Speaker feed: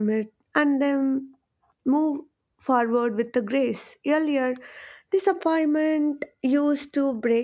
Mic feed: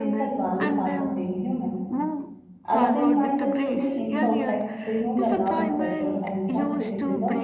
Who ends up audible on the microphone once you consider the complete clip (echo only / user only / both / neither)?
both